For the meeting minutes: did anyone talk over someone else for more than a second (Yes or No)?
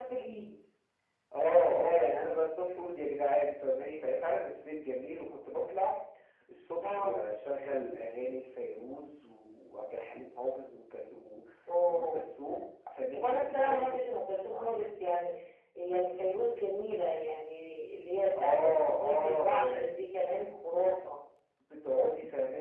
Yes